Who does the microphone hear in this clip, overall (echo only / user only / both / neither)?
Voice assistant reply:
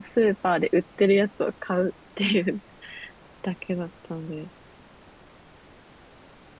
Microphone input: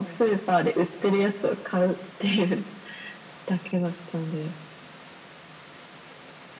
echo only